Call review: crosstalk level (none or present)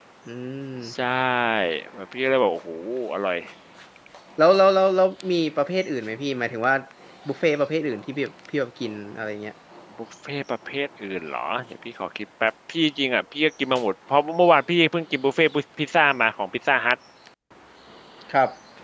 none